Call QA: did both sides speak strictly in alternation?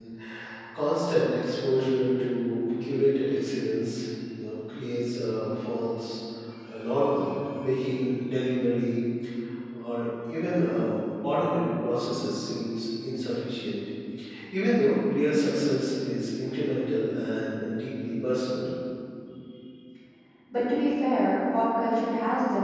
Yes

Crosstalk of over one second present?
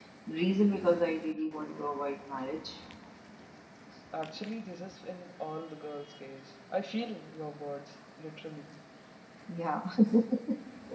No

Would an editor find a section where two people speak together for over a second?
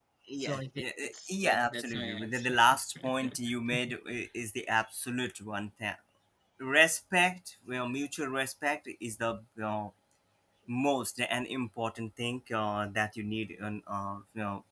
Yes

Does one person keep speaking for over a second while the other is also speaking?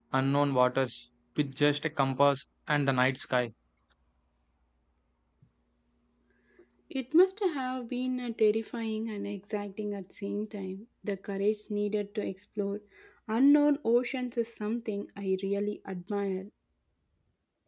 No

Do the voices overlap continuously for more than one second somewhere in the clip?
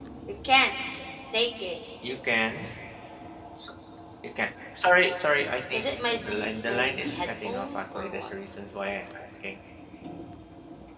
Yes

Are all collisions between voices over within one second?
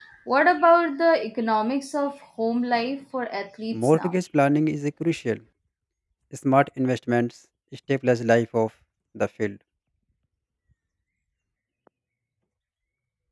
Yes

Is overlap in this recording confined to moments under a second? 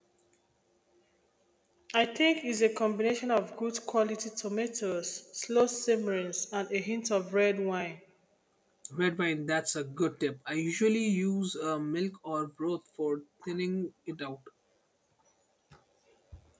Yes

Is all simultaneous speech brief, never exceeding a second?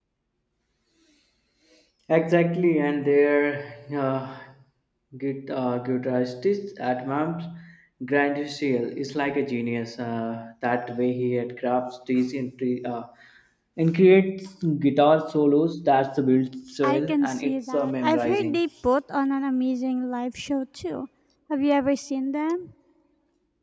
No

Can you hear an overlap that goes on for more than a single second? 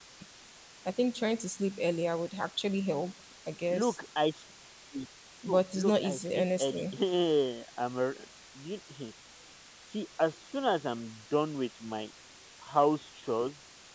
Yes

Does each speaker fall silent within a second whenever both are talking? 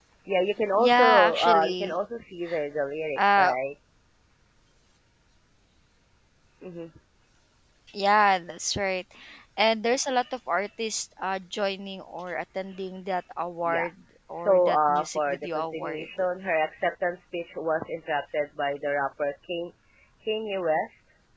No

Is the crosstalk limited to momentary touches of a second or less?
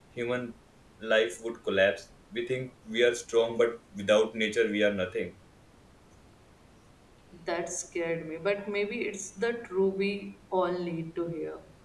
Yes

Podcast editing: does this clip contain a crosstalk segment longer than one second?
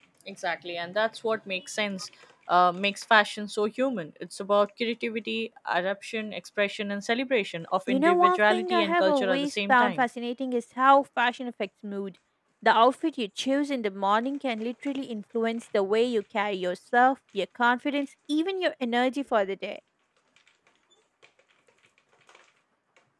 Yes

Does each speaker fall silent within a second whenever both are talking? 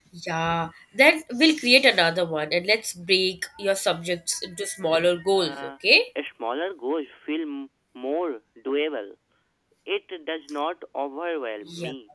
Yes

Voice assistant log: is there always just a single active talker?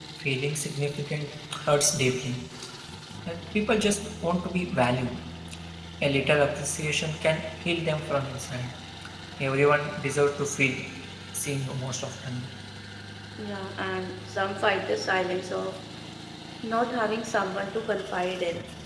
Yes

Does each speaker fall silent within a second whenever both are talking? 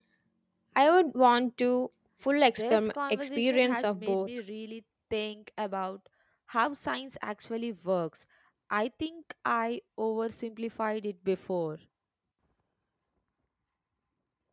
No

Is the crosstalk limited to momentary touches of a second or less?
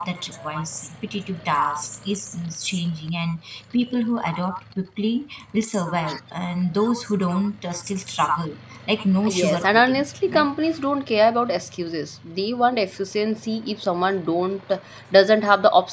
No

